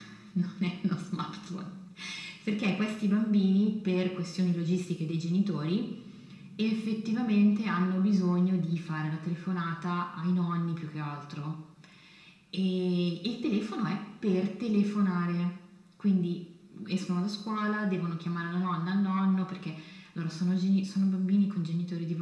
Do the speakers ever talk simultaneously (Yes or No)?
No